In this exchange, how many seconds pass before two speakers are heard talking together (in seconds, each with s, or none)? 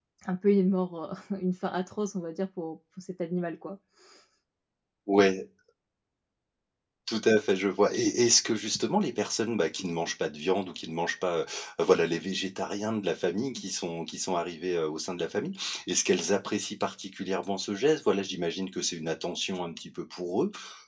none